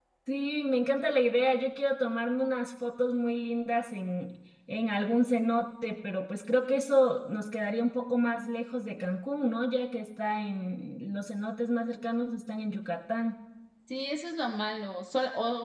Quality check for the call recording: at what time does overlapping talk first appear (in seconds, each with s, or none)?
none